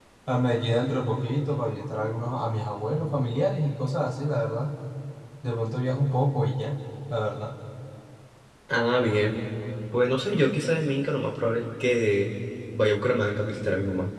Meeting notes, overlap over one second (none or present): none